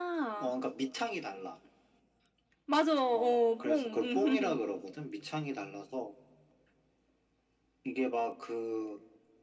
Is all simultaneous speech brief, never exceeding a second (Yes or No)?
No